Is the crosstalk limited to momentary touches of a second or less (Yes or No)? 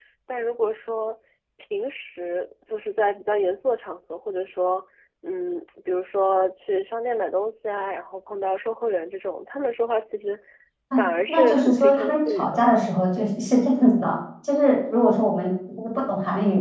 No